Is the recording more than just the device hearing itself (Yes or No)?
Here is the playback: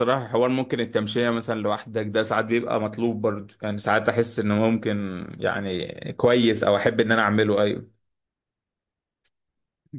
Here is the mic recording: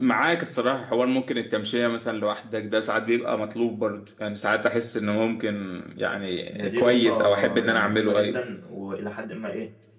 Yes